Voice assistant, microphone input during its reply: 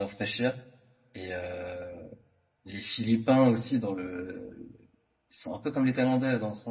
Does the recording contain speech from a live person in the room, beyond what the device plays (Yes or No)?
Yes